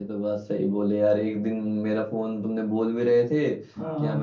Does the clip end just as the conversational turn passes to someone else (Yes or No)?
No